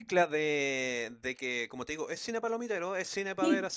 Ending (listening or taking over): listening